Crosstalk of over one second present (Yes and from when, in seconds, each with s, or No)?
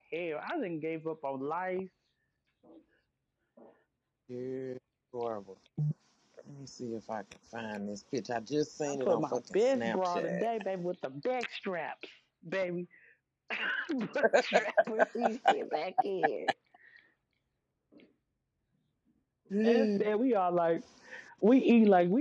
Yes, from 8.8 s